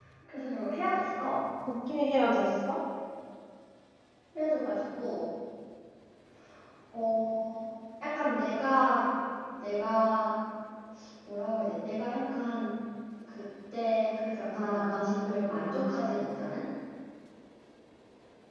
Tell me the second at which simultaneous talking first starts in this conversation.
14.5 s

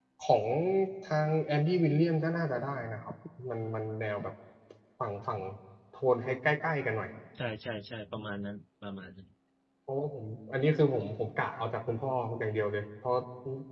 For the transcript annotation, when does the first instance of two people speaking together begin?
none

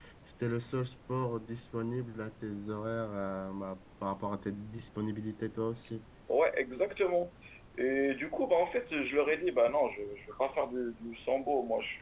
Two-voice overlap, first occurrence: none

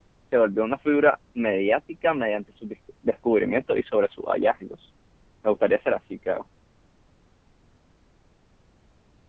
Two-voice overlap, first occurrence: none

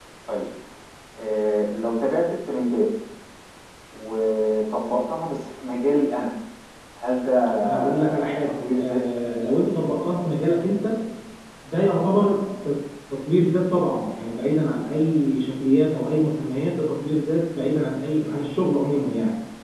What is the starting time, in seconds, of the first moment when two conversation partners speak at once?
7.6 s

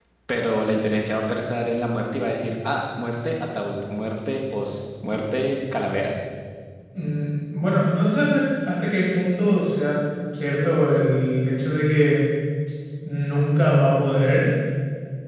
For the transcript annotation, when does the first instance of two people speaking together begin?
none

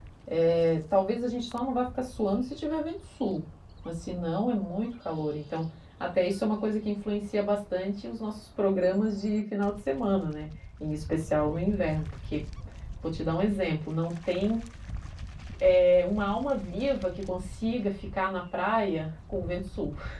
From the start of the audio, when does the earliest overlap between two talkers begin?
none

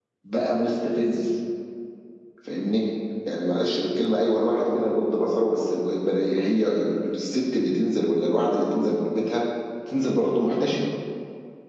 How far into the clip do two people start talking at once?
none

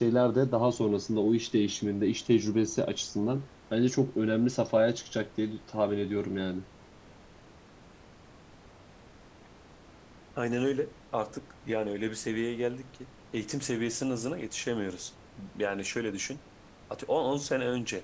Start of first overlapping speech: none

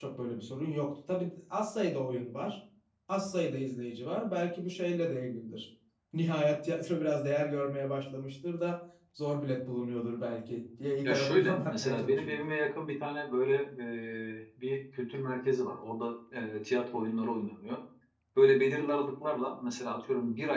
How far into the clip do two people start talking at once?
11.0 s

